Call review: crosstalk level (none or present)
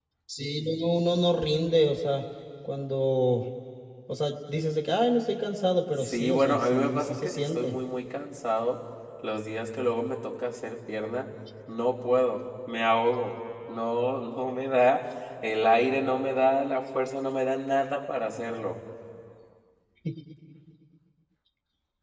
present